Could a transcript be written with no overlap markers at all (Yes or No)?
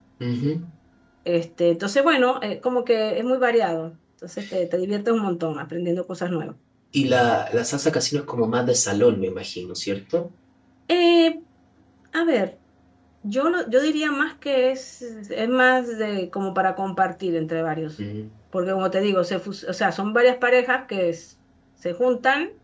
Yes